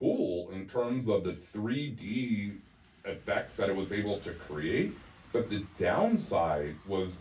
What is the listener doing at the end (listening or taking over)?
listening